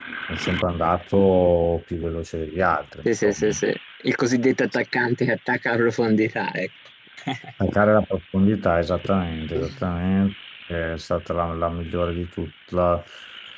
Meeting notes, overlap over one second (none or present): none